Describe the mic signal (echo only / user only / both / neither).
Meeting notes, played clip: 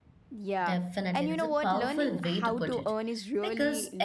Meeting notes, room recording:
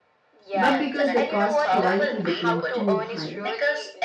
both